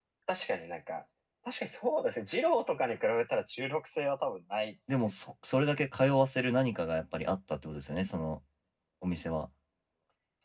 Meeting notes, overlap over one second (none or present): none